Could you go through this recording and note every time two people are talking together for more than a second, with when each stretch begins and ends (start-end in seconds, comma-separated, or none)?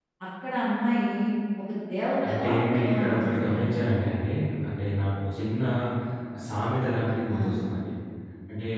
2.3-3.5